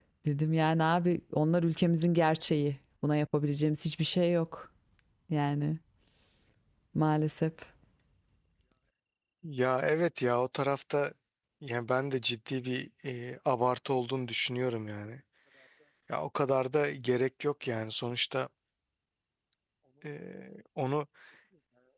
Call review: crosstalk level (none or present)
none